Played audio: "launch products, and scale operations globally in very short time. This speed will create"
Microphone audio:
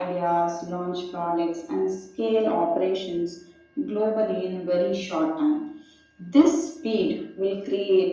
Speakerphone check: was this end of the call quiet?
Yes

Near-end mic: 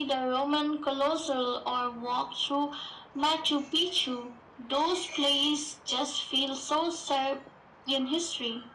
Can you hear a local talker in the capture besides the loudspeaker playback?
No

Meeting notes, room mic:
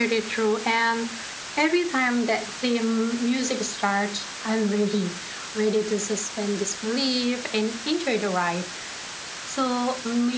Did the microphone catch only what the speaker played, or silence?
Yes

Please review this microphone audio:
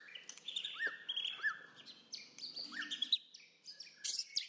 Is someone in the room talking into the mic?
No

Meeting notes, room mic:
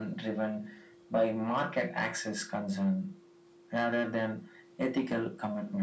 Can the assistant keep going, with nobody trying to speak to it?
Yes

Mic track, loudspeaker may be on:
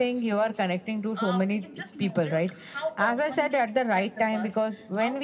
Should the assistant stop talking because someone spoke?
Yes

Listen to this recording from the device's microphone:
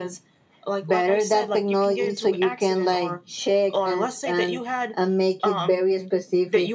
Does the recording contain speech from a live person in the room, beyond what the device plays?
No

